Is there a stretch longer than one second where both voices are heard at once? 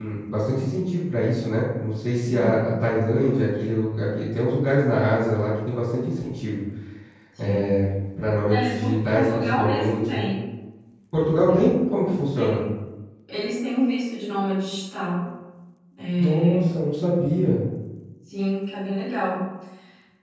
Yes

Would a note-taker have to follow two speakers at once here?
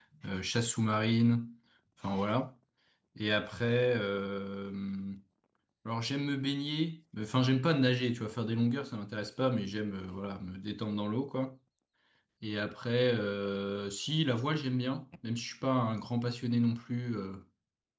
No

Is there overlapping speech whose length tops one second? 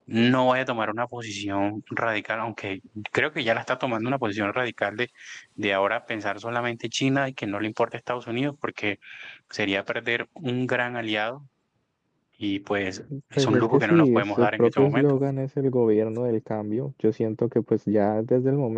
Yes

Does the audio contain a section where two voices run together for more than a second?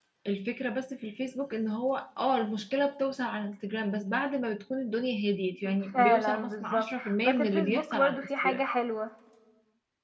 Yes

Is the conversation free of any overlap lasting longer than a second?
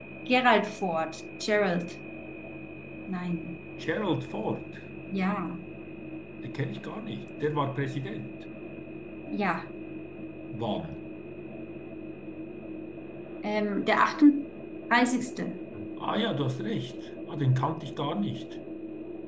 Yes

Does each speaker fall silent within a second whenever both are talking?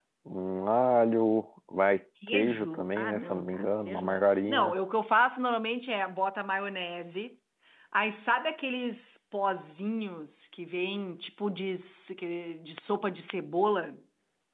No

